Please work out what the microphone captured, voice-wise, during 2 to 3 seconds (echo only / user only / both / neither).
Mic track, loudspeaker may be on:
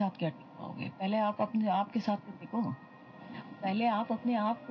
echo only